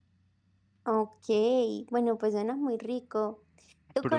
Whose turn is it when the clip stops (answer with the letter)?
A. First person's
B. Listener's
A